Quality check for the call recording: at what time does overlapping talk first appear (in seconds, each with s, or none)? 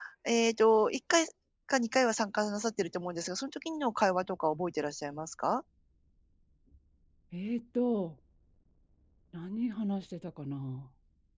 none